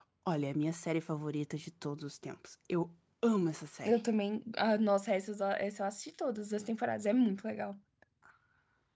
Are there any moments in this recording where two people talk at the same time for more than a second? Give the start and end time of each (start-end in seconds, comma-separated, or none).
none